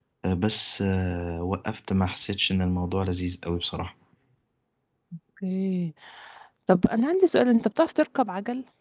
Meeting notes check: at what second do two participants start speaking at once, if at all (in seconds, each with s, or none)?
none